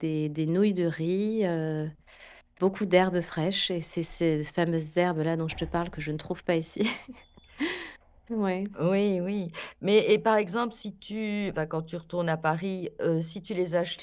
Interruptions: none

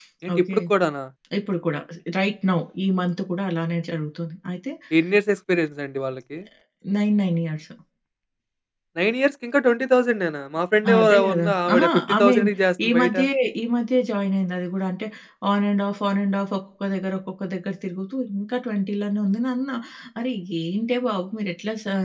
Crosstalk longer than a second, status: present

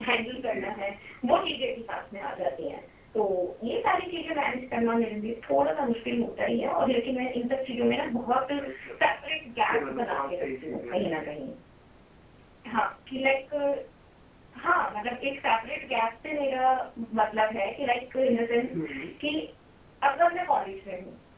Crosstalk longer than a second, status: present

